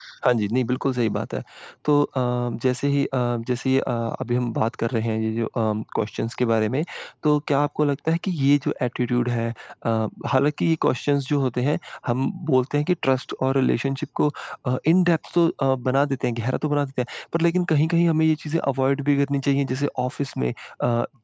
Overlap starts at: none

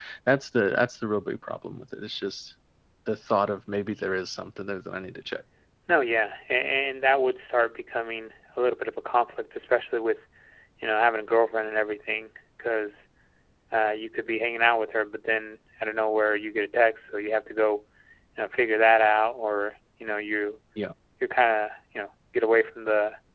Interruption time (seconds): none

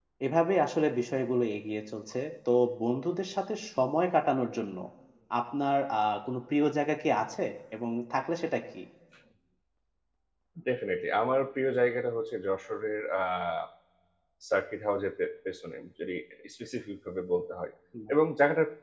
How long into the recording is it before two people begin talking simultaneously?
none

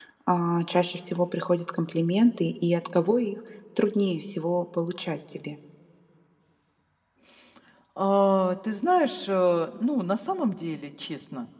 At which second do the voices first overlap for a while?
none

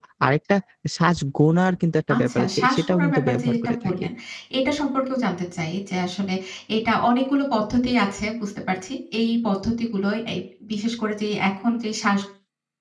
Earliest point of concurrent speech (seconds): 2.1 s

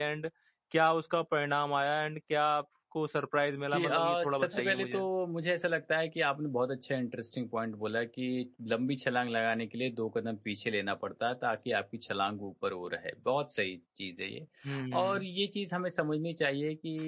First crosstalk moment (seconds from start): 3.7 s

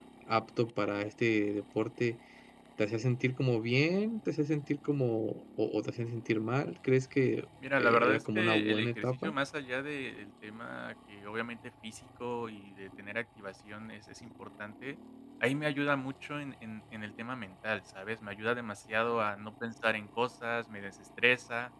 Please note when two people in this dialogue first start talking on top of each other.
7.8 s

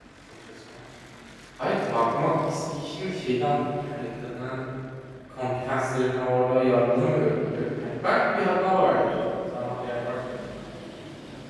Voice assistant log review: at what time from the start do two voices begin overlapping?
none

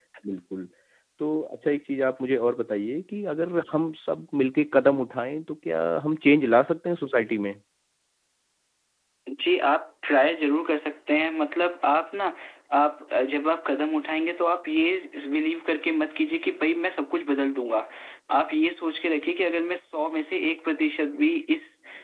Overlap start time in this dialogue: none

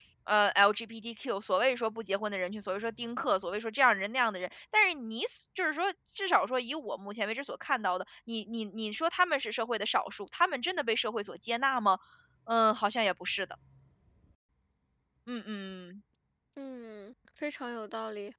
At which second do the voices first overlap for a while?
none

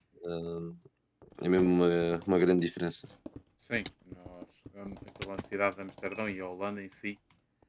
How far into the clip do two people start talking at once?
none

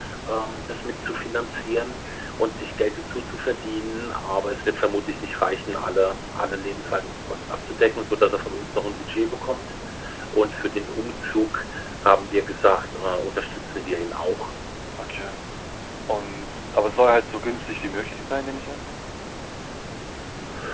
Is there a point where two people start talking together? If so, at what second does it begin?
none

